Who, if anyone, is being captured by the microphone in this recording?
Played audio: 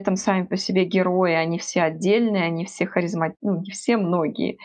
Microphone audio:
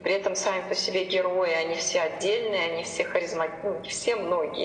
echo only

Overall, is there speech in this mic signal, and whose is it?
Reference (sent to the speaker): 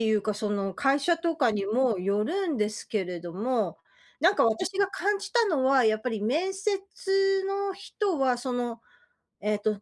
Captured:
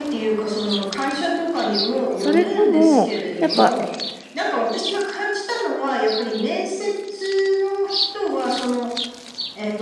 both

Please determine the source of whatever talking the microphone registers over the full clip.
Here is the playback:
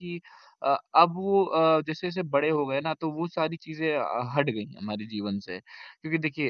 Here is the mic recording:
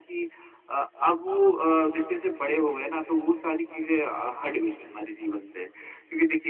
echo only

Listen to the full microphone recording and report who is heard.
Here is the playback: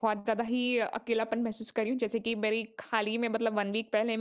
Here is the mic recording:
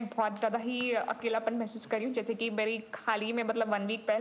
echo only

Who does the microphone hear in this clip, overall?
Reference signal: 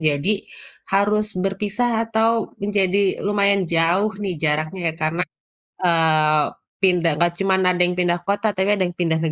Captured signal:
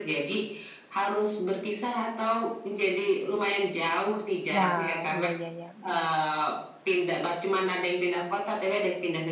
both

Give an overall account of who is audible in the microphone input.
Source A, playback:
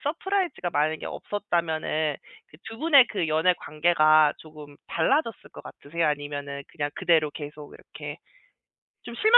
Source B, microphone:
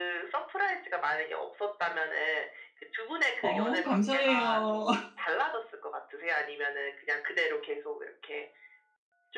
both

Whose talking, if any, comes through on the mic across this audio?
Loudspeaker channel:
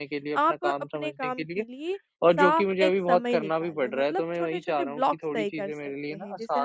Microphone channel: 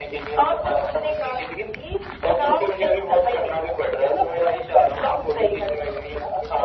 echo only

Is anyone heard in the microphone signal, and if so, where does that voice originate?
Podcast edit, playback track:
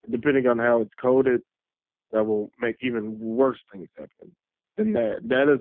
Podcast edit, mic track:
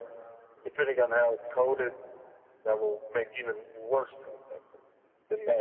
echo only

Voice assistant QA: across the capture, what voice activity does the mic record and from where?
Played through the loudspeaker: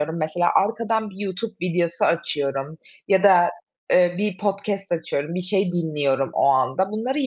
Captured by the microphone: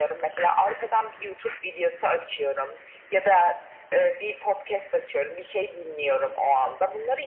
echo only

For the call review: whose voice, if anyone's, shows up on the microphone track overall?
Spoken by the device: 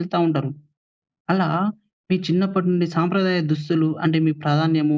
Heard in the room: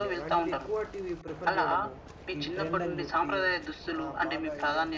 both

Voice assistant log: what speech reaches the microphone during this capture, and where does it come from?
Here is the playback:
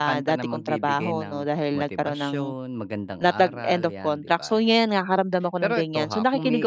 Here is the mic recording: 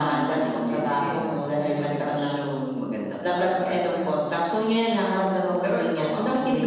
echo only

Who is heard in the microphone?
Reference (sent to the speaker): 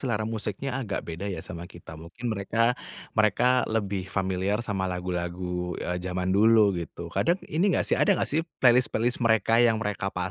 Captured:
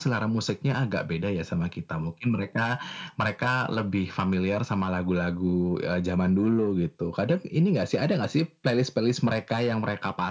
echo only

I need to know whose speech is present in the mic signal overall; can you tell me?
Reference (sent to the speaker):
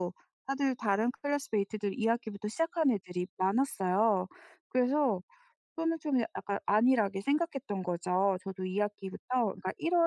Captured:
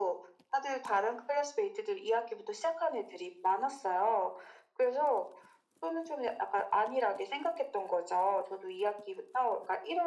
echo only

